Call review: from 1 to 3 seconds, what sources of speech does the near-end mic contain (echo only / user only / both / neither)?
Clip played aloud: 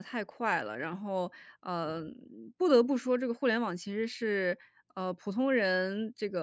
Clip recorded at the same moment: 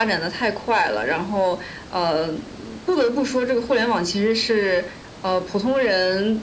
echo only